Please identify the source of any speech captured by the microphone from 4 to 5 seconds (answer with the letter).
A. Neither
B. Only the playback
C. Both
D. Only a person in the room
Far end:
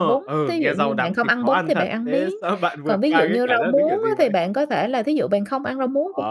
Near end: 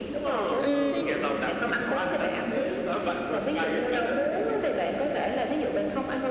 B